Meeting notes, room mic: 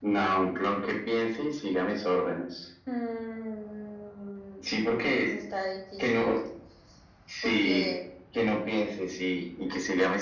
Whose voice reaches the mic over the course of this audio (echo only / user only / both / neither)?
echo only